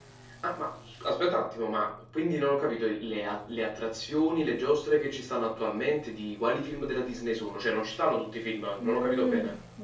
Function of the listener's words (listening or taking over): taking over